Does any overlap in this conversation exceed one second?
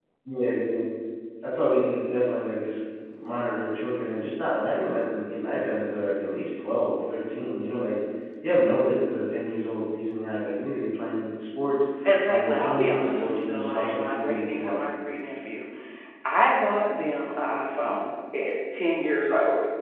Yes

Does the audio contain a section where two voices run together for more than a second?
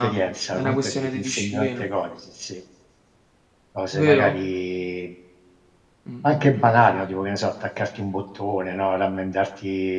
Yes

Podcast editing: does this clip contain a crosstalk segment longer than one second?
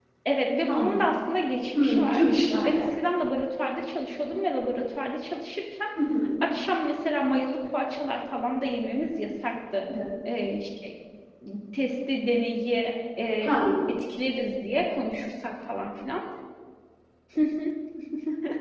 No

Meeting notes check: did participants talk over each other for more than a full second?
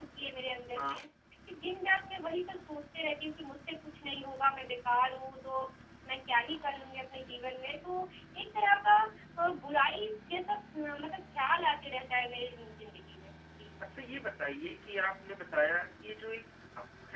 No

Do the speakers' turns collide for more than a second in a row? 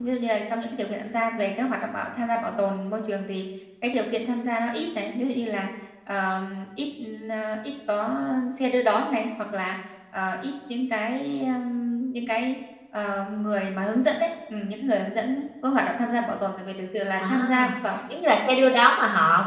No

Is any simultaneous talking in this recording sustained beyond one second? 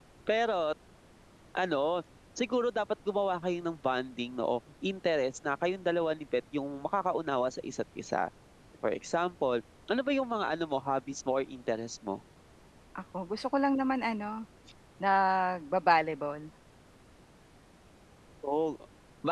No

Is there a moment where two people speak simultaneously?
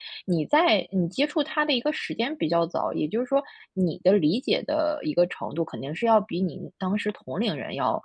No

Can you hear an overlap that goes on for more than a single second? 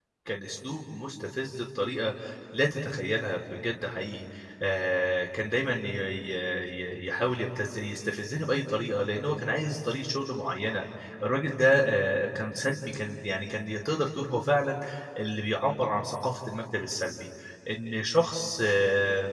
No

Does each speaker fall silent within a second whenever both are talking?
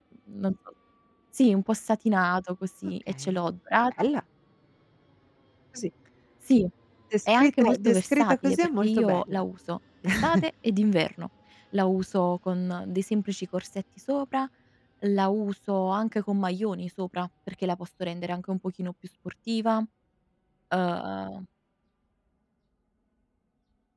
No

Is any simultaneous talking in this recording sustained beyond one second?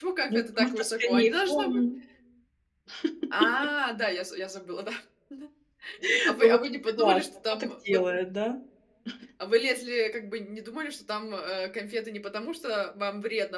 Yes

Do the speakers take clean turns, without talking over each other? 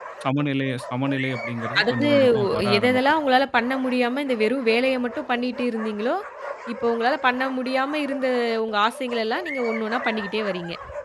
No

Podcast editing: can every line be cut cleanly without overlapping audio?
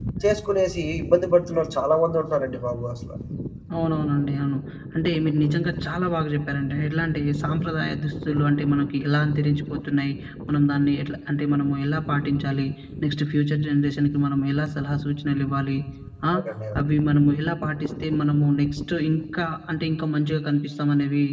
Yes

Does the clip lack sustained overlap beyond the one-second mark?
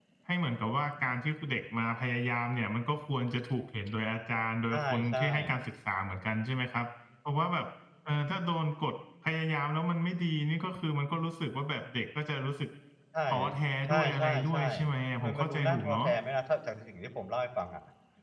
No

